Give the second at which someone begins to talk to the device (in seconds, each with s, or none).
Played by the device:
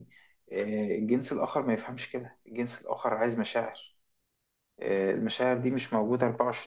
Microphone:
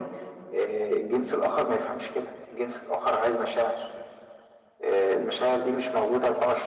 none